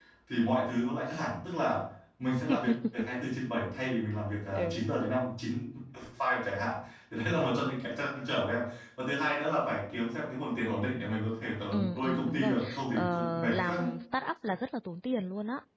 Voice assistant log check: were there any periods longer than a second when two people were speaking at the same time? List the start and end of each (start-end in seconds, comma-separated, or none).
11.7-13.9